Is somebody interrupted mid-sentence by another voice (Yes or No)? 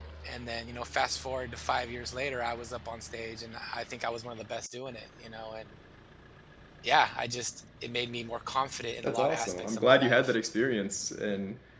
Yes